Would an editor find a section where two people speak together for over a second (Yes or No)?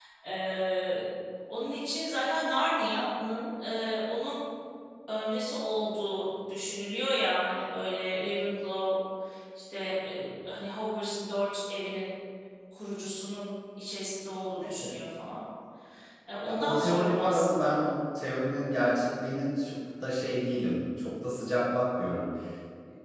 Yes